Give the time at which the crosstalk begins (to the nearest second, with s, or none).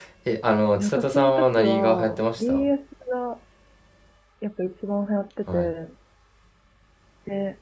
1 s